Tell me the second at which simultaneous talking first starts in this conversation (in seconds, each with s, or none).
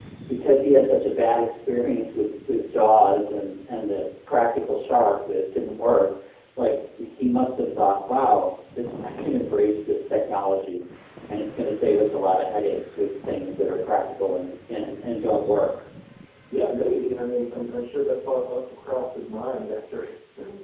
none